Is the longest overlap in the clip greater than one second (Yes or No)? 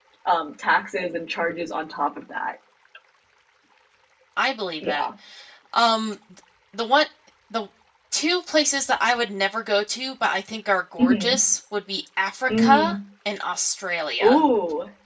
No